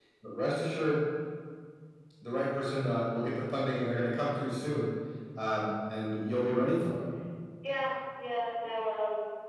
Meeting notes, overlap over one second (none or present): none